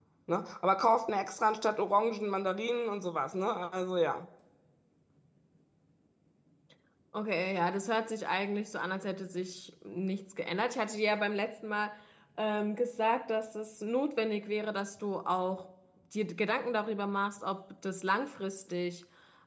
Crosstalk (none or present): none